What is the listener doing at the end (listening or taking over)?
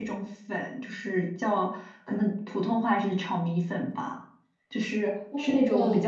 listening